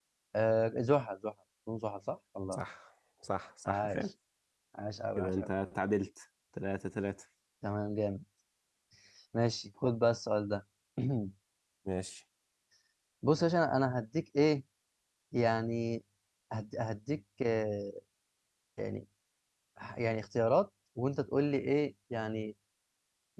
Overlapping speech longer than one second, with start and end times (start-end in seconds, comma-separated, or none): none